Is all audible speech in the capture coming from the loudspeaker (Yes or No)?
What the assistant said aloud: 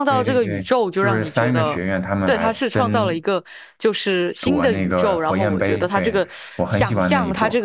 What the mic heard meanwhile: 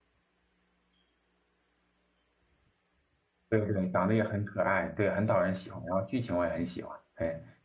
No